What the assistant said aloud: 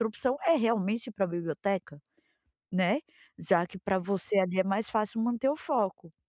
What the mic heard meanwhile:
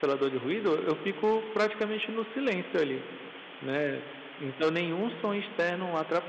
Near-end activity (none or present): present